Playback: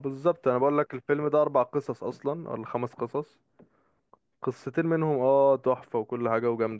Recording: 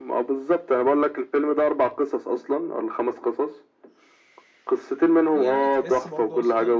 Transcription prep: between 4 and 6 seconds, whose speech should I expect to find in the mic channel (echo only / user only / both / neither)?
both